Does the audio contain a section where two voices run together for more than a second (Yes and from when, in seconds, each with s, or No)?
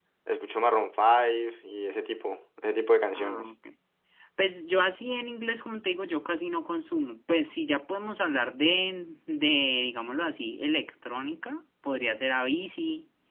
No